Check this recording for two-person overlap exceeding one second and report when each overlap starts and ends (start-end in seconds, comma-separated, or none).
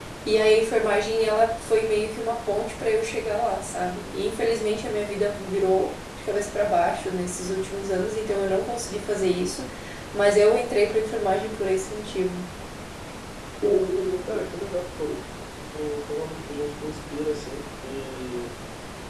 none